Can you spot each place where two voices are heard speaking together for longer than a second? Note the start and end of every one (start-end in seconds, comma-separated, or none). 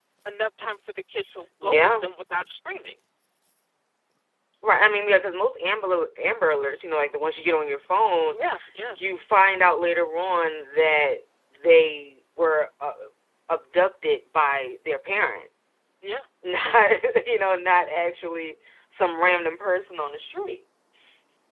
none